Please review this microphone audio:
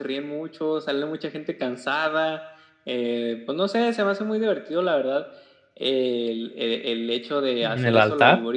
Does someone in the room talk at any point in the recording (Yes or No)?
Yes